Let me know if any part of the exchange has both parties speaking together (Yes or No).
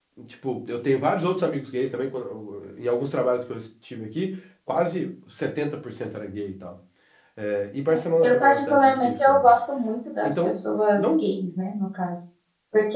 Yes